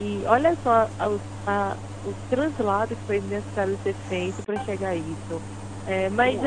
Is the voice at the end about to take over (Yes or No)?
No